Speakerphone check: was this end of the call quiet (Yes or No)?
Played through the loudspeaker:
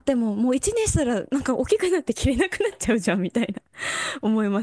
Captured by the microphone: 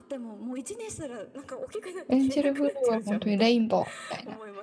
No